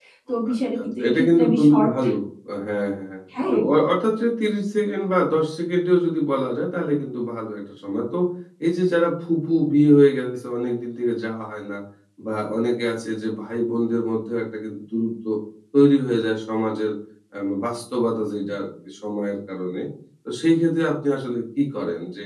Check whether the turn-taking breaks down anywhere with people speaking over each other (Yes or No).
Yes